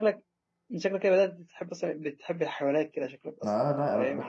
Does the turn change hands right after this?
Yes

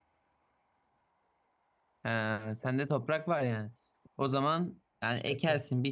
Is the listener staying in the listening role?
Yes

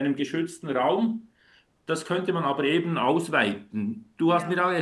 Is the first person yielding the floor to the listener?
No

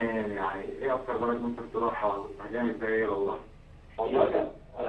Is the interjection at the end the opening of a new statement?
Yes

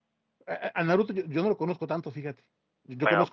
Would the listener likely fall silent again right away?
Yes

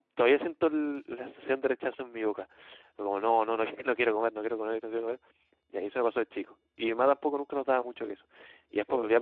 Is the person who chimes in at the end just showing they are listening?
Yes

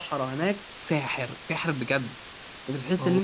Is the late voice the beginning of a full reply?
No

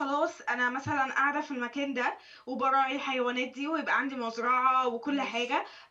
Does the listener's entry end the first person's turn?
No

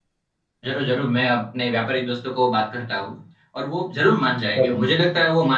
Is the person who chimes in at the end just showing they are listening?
Yes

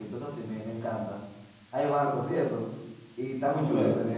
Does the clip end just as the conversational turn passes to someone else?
Yes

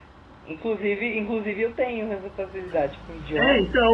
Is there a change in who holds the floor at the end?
Yes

